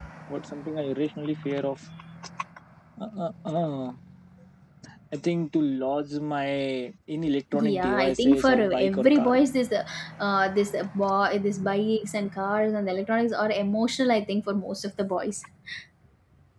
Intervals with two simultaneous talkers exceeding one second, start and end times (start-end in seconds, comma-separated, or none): 7.5-9.4